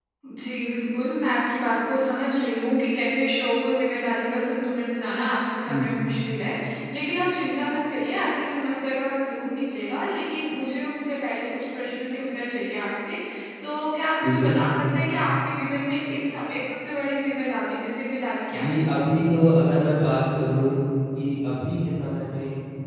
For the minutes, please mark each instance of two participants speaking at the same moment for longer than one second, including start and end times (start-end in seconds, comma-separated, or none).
none